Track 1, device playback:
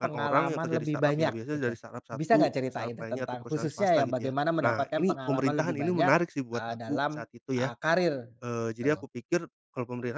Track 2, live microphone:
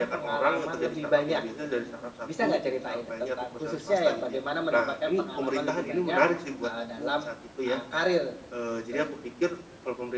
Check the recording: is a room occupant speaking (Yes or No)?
No